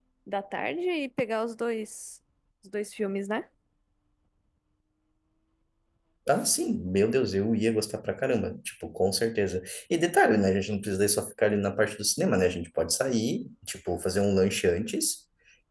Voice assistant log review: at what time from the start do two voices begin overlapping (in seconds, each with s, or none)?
none